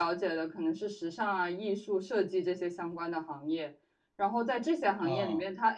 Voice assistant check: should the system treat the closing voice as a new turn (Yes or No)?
No